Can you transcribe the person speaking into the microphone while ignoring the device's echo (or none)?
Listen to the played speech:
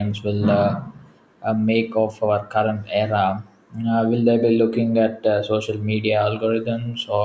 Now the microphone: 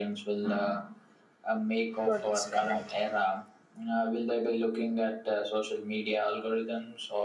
produce when I can.